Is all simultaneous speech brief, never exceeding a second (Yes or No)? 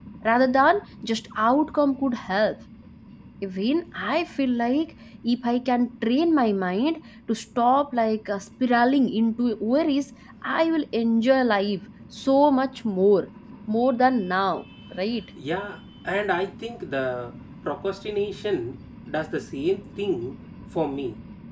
Yes